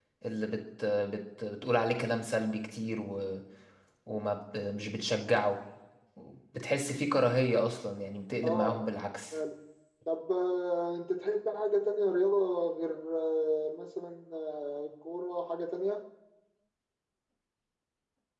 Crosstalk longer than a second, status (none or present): none